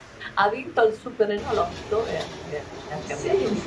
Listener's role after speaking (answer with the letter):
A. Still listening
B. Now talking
B